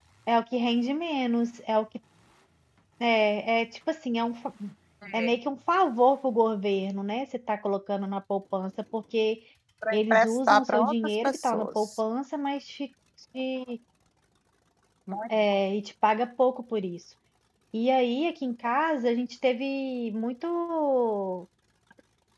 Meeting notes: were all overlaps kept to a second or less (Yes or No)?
No